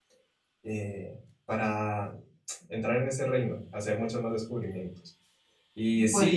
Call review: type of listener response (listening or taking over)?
listening